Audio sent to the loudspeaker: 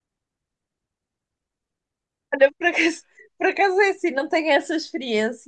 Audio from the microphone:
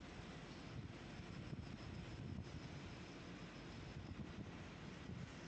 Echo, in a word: none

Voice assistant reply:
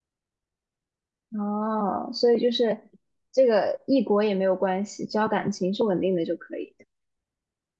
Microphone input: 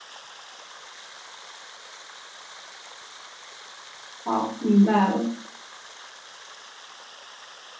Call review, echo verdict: none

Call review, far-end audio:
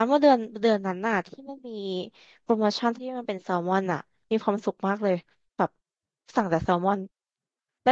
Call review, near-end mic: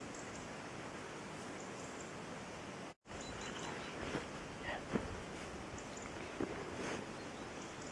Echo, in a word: none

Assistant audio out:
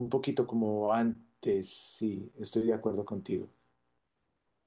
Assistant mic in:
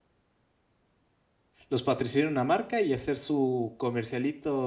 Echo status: none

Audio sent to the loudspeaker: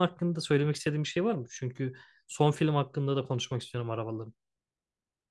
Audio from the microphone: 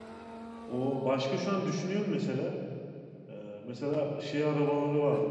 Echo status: none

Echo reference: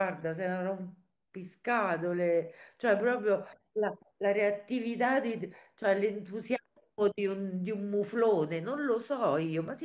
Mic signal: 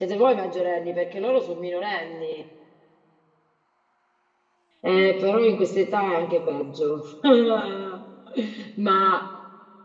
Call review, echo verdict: none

